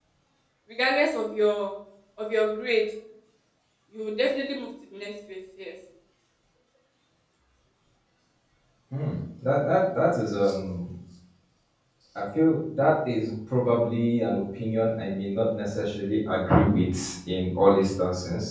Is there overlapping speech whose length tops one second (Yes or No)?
No